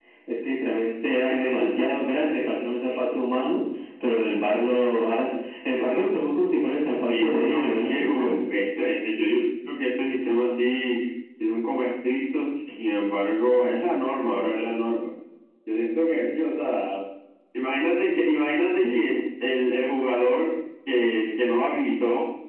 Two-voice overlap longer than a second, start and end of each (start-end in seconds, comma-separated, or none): 7.1-8.3